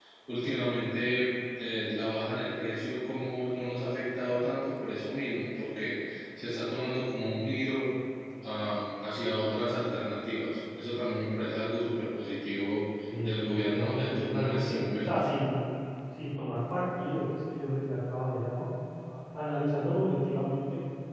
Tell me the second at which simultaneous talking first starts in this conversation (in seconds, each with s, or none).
13.1 s